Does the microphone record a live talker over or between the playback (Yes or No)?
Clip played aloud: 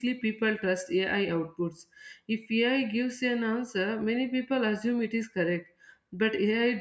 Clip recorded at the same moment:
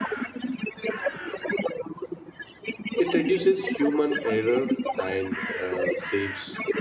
Yes